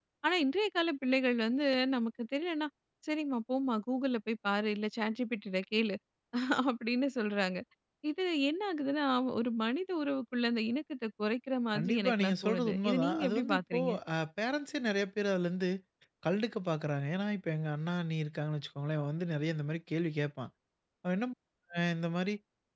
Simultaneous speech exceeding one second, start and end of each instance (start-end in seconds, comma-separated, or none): 11.7-13.9